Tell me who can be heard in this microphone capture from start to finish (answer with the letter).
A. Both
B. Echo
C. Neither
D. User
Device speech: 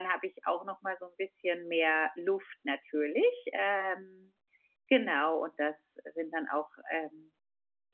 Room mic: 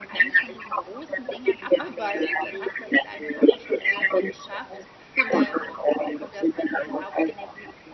A